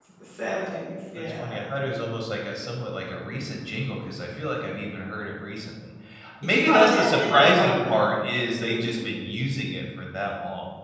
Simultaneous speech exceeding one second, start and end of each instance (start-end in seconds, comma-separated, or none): 6.4-8.0